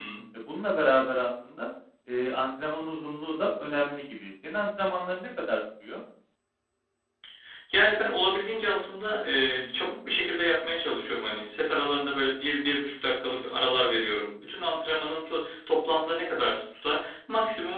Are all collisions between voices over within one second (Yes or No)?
Yes